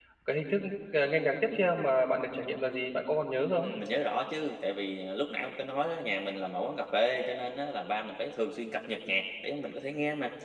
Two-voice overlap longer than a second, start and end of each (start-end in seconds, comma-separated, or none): none